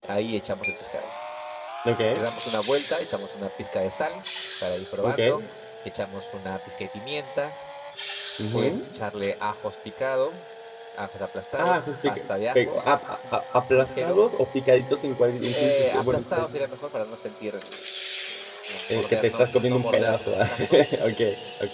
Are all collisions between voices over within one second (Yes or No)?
No